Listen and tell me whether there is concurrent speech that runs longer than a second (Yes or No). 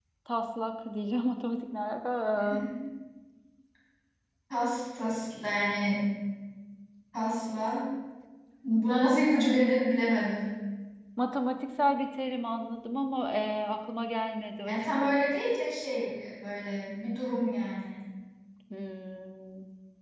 No